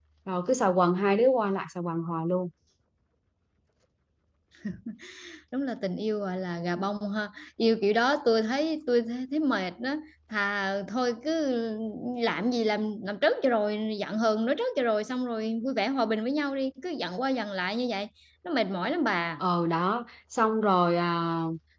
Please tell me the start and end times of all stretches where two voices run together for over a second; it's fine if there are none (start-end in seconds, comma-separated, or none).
none